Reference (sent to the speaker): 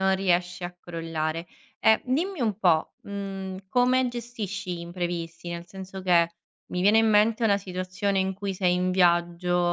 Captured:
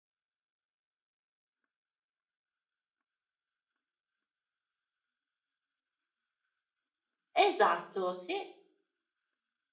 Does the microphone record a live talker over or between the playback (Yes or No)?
Yes